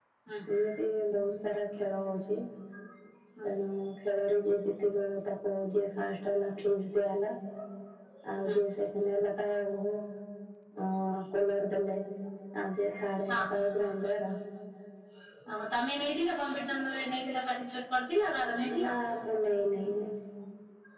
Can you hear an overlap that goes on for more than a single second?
No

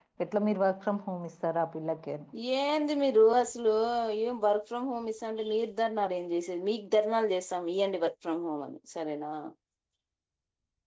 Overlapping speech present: No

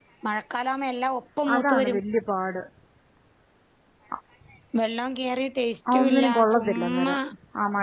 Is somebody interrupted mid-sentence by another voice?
Yes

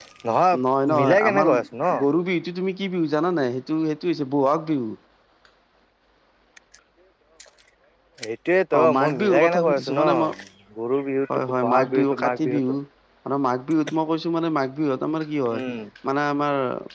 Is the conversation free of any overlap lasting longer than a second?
No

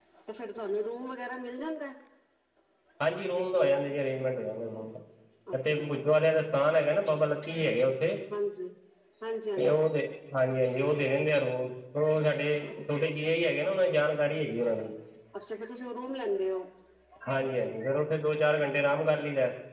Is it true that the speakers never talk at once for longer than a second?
Yes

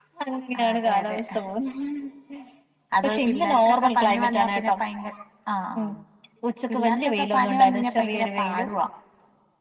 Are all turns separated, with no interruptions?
No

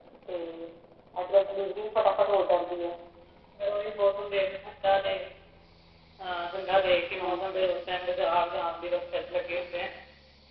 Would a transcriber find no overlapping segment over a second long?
Yes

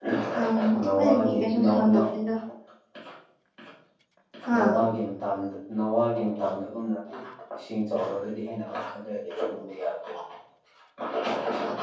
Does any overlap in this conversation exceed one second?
Yes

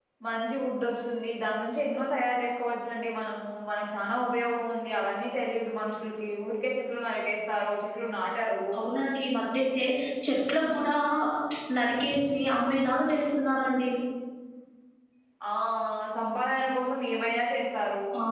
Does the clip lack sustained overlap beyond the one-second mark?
Yes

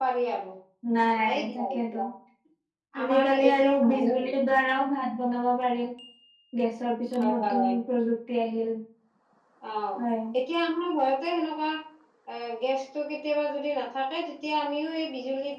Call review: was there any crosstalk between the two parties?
Yes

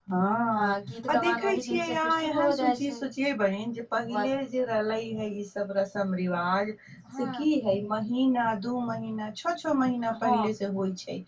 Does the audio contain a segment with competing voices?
Yes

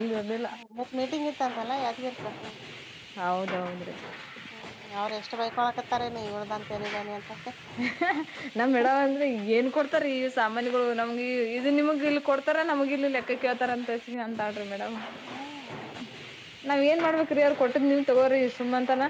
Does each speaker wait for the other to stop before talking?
Yes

